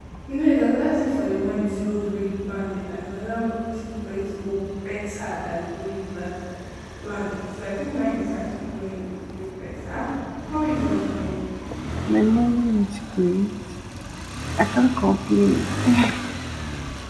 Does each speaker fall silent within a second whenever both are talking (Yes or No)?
Yes